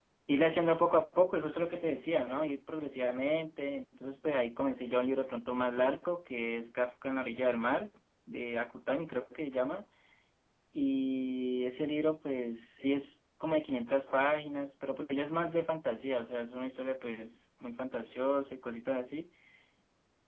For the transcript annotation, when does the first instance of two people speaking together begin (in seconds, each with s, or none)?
none